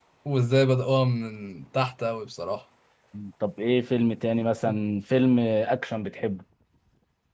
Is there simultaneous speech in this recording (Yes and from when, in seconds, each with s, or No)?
No